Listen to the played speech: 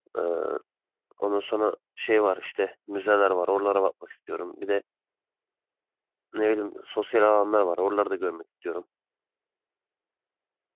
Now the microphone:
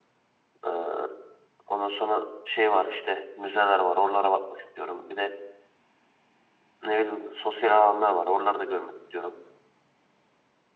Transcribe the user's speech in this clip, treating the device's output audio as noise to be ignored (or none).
none